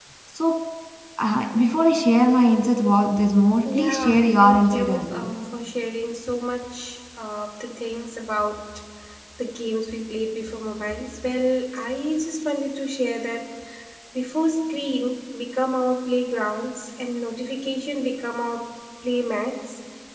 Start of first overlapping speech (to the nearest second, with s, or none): 4 s